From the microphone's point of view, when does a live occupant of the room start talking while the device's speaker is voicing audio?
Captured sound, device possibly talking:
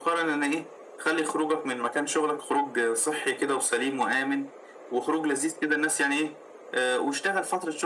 none

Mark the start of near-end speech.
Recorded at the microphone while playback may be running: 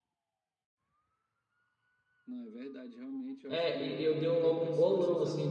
3 s

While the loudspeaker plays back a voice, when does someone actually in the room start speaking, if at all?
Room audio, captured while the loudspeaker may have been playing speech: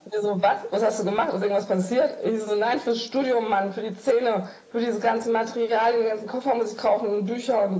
none

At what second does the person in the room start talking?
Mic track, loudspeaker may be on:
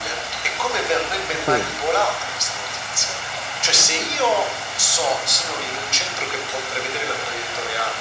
1 s

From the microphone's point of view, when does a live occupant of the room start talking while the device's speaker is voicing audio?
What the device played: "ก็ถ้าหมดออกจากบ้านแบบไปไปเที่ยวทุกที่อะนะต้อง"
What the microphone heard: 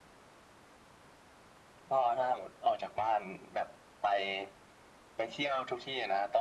none

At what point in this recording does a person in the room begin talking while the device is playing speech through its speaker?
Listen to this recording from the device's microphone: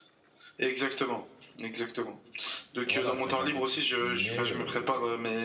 3 s

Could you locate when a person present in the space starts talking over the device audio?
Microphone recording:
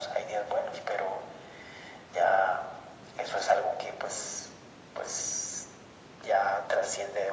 none

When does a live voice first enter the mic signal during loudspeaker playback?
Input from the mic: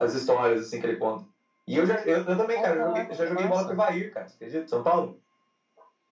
3 s

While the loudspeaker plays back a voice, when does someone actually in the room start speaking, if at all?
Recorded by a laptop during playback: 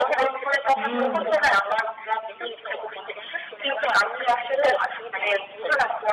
1 s

